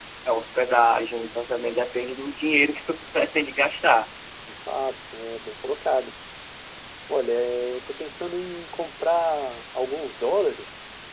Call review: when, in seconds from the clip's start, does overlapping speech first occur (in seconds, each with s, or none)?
none